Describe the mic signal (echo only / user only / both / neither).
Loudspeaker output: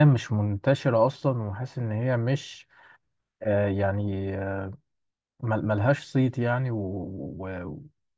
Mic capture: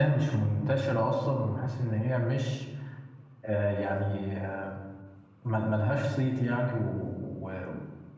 echo only